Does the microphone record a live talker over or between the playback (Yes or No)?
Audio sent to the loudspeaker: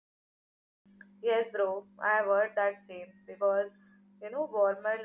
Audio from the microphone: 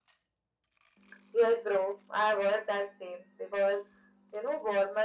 No